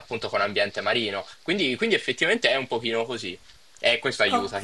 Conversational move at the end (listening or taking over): taking over